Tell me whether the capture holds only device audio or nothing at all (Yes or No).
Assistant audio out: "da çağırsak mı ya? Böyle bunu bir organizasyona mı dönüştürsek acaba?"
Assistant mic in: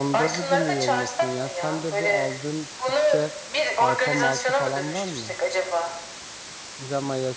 No